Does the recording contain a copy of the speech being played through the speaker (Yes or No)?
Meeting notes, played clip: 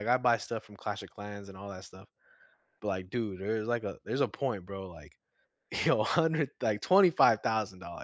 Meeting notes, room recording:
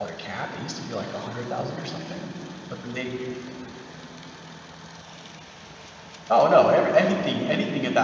No